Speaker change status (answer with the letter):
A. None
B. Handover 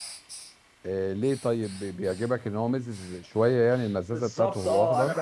B